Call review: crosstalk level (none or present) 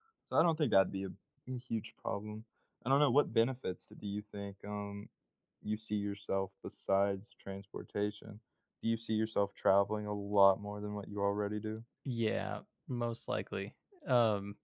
none